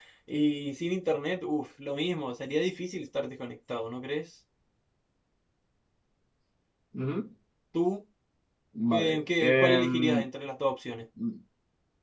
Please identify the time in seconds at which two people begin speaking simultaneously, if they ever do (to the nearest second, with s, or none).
9 s